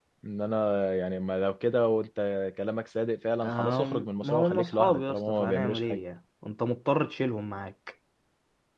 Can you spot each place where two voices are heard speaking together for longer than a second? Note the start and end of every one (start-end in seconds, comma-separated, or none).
3.4-6.0